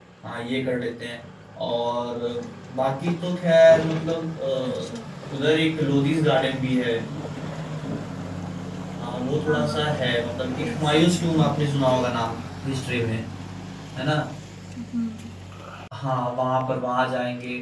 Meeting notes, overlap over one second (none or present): present